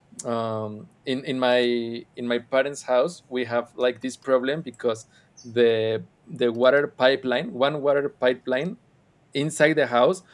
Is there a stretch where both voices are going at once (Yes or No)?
No